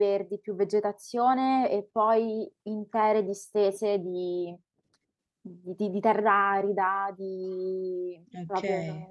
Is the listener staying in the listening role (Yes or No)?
Yes